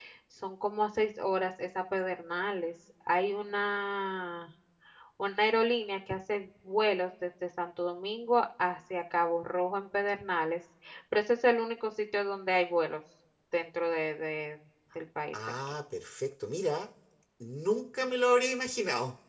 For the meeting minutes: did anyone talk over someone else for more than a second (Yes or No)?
No